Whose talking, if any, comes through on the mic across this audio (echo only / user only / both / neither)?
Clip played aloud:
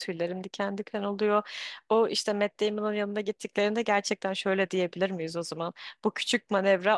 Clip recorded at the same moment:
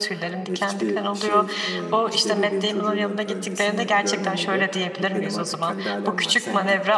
both